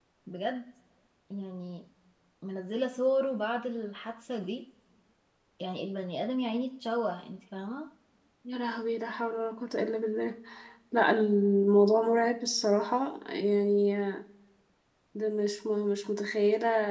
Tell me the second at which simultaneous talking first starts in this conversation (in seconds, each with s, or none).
none